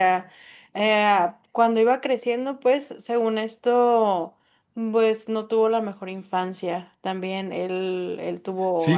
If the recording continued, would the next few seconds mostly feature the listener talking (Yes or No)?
Yes